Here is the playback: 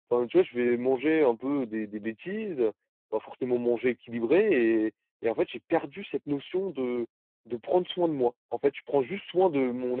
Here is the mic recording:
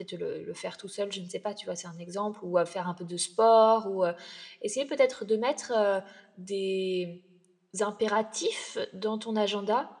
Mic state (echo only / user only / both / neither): user only